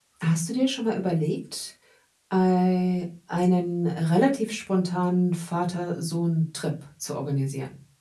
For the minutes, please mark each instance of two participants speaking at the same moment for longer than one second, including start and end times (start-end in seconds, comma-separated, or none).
none